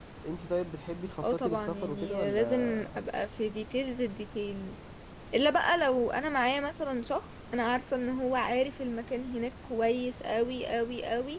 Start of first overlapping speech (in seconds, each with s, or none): 1.2 s